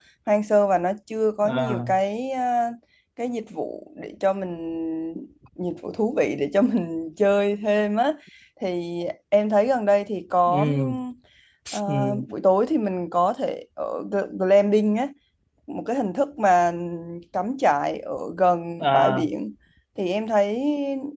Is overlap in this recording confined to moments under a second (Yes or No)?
Yes